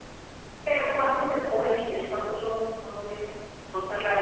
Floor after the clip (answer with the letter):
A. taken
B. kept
A